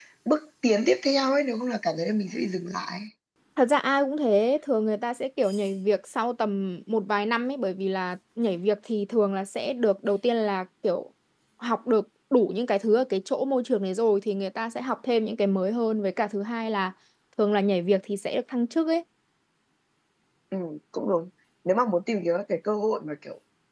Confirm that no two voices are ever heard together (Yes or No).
Yes